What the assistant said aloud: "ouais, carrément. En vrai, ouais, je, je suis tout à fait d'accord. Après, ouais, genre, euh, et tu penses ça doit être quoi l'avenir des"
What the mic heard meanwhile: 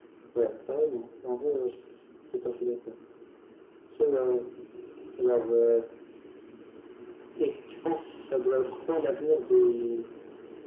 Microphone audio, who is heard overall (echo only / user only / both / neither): echo only